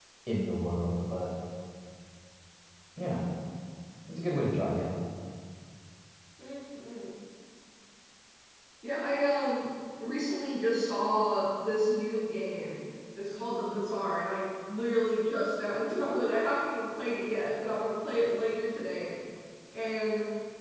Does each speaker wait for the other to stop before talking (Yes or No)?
Yes